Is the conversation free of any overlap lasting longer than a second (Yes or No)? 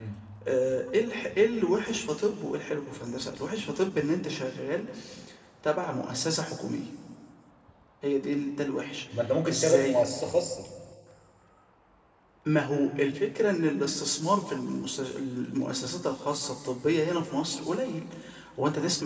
Yes